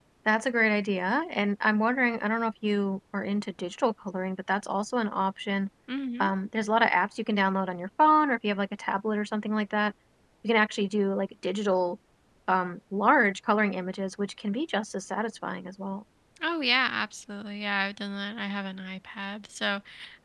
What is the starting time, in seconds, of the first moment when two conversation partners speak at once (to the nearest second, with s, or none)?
none